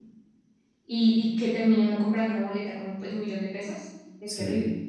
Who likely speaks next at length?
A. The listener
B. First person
A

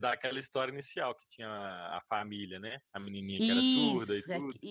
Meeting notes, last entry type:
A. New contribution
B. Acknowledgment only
A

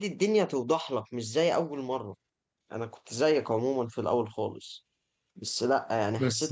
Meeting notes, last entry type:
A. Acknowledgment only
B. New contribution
A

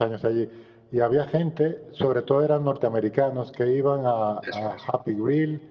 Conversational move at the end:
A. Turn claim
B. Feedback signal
B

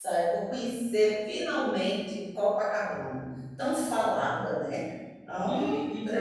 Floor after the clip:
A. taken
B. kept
A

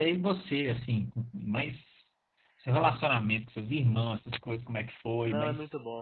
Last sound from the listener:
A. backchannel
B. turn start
B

